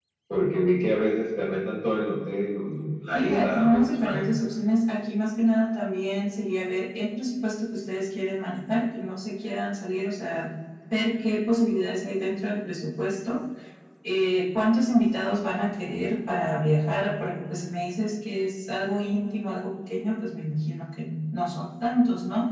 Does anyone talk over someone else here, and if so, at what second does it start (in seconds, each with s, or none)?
3.1 s